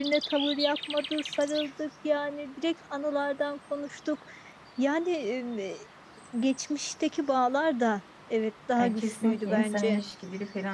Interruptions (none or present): present